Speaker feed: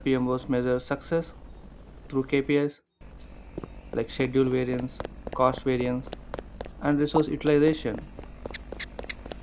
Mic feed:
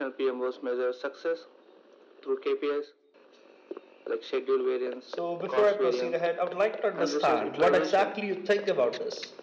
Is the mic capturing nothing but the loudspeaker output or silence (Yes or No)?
No